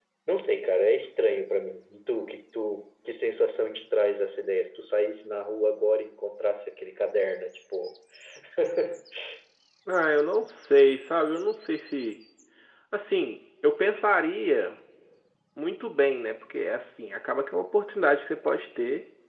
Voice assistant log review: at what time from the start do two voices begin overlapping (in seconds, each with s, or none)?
none